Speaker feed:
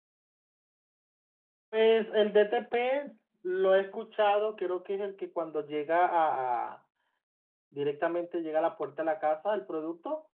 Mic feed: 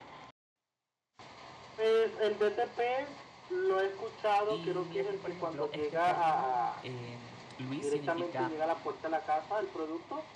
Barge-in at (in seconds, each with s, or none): 4.5 s